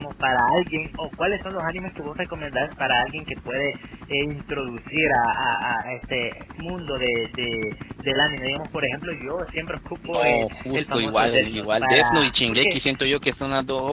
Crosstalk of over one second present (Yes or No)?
Yes